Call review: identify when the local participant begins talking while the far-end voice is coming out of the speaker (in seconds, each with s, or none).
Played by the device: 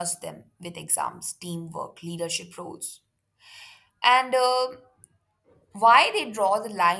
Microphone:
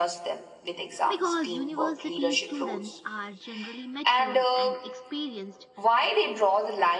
1.1 s